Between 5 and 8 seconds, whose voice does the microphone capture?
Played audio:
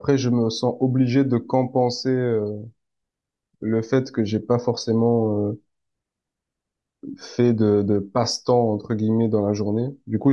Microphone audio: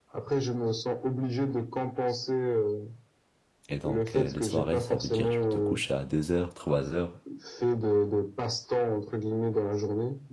both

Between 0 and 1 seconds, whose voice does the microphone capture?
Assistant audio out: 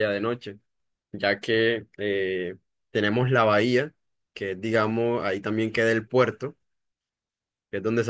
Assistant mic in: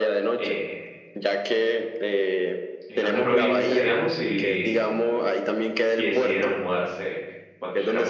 both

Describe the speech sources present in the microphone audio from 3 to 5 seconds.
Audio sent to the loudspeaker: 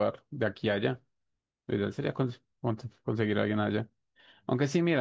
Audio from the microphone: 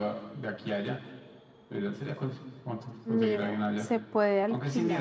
both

